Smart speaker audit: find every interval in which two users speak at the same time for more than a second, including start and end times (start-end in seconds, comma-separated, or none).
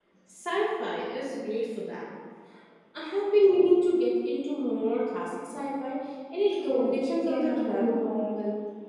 6.6-8.0